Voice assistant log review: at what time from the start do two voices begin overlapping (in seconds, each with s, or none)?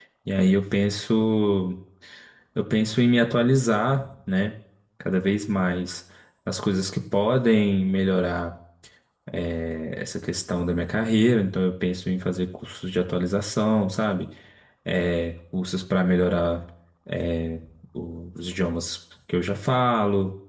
none